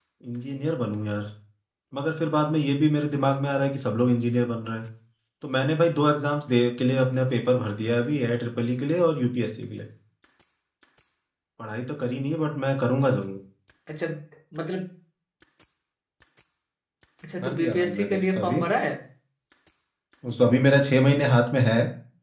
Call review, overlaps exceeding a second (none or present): present